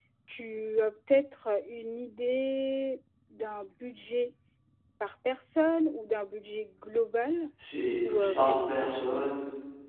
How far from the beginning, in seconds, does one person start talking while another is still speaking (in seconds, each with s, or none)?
8.1 s